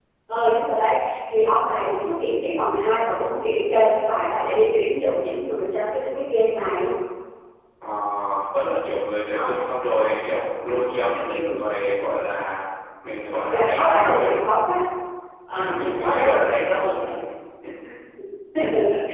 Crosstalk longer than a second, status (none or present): present